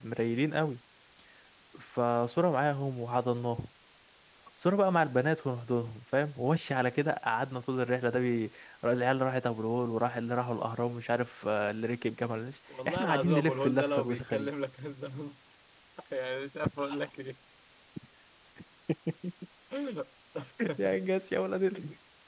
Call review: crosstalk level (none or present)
present